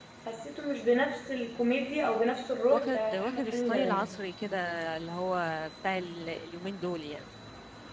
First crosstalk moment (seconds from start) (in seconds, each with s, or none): 2.7 s